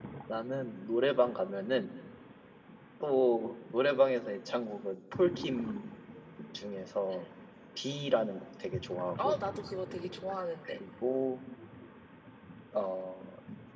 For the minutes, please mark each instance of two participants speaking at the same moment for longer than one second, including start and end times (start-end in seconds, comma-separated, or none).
none